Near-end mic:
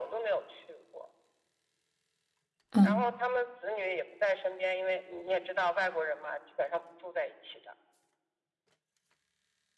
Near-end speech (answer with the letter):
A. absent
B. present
B